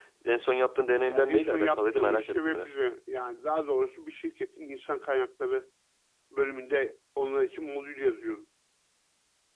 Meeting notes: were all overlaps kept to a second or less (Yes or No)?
No